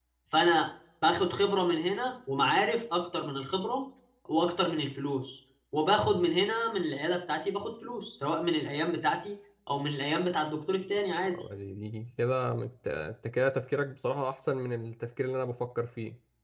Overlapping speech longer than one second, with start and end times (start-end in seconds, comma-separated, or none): none